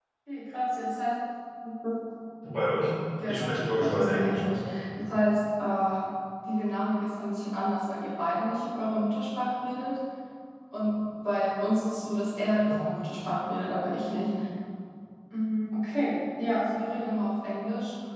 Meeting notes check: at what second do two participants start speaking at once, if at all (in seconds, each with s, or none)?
3.2 s